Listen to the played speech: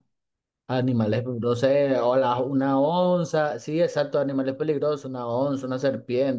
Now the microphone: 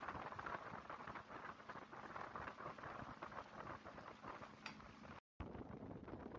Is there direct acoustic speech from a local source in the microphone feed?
No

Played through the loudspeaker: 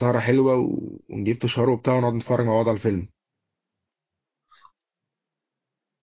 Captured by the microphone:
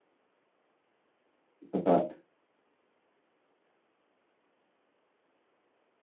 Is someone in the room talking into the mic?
Yes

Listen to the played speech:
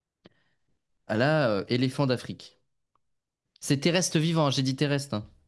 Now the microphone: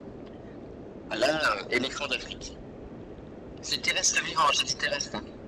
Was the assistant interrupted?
No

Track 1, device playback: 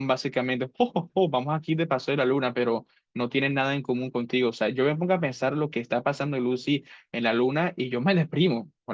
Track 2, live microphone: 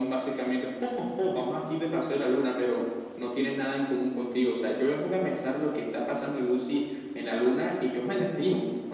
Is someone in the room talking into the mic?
No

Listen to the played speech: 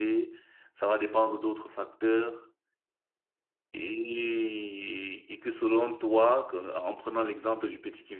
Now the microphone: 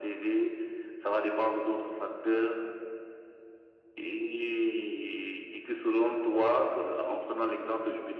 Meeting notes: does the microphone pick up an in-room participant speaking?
No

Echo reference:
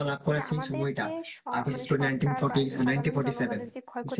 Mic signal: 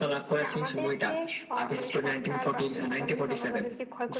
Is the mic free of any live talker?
Yes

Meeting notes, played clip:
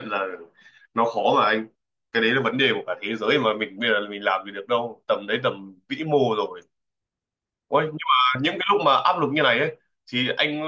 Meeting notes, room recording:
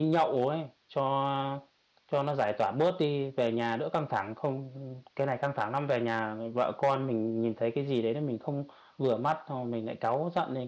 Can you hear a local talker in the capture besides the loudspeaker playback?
Yes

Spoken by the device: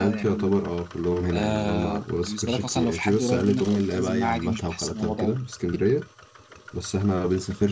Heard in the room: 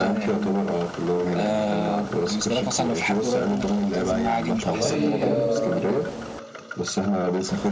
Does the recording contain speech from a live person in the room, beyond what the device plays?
Yes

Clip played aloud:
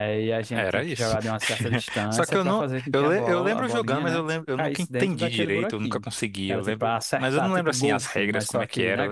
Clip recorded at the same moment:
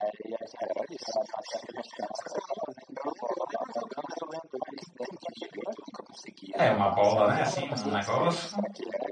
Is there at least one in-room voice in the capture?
Yes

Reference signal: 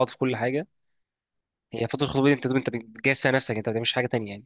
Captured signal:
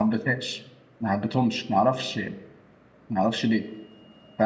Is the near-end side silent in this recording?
No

